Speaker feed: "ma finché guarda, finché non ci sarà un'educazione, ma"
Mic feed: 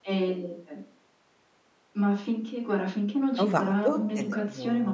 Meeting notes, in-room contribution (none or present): present